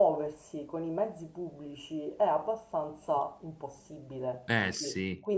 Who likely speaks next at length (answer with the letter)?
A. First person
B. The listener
A